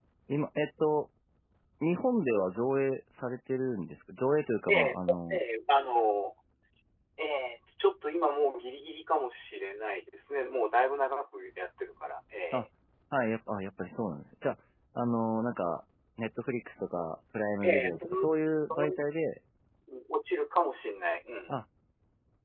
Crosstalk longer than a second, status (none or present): present